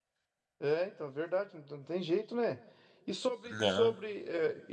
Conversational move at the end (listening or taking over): listening